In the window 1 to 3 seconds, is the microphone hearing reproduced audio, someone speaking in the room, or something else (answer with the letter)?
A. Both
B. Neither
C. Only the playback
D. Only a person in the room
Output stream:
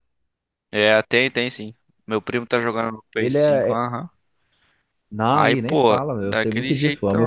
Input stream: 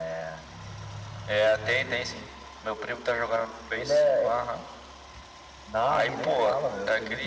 C